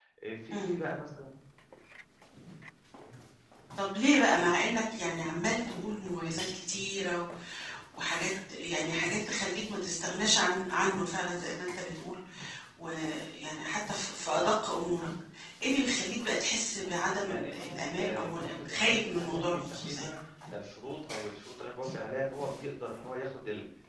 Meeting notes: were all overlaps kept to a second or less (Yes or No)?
No